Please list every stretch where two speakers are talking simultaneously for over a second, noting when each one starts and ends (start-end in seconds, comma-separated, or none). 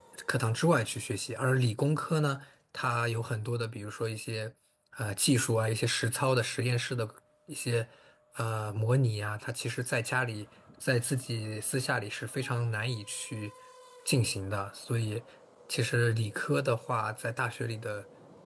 none